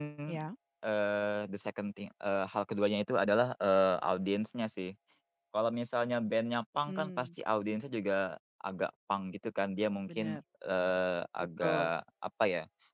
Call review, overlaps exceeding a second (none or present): none